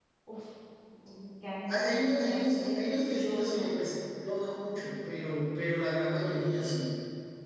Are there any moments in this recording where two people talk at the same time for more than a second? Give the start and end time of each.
1.7-3.7

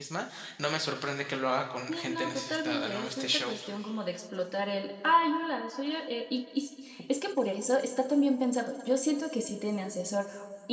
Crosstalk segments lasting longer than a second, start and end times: 1.9-3.5

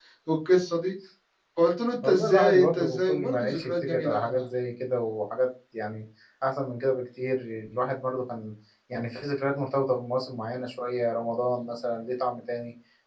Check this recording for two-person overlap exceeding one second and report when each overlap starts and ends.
2.0-4.3

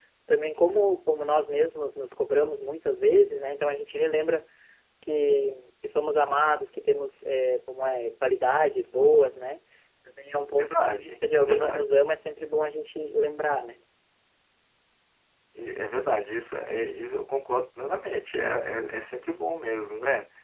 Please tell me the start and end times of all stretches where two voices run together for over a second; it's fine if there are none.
10.6-11.9

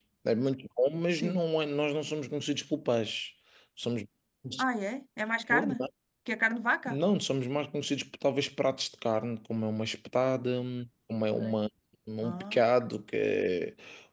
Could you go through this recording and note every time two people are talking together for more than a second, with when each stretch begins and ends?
none

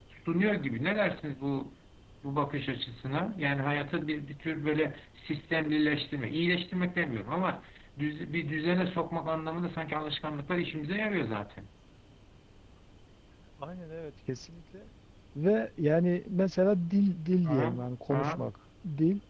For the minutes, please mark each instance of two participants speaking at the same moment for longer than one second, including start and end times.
none

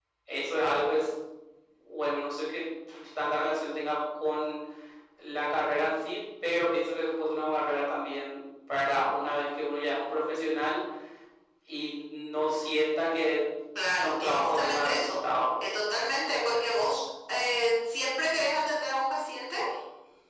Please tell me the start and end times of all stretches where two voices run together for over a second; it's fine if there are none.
13.8-15.1

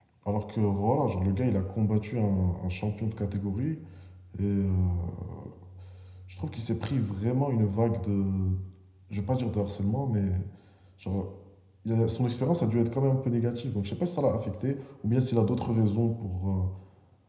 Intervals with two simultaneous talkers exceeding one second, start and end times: none

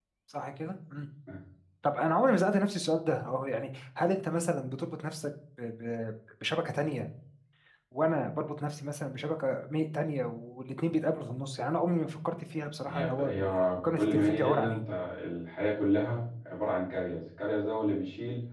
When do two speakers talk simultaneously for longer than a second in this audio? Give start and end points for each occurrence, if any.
12.9-14.8

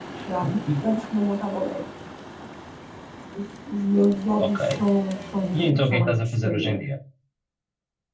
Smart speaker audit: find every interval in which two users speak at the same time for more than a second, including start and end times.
5.5-6.8

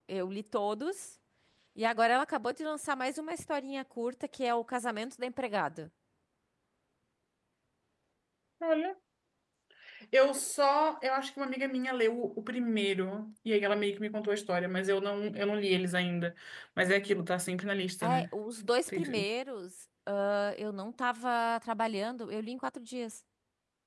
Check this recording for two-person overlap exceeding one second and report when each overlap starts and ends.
none

